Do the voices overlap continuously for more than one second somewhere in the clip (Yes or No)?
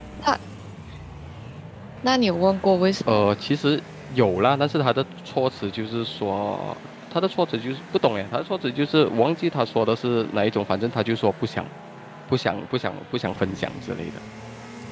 No